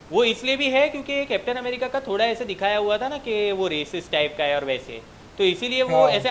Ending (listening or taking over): listening